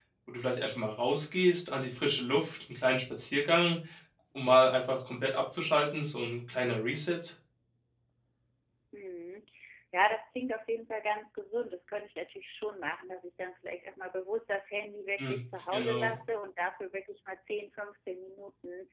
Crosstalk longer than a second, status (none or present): none